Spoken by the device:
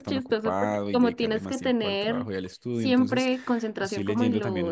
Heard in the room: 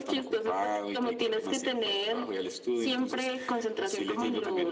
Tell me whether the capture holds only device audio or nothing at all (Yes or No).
Yes